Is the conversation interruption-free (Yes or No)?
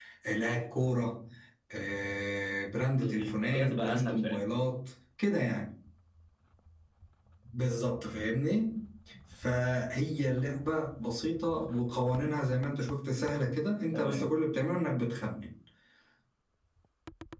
No